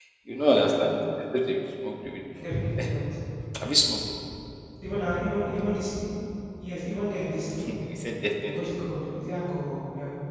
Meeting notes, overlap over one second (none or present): none